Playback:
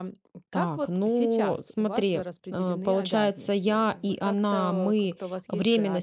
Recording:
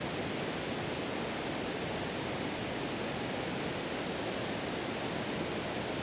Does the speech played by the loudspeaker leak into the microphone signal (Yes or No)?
No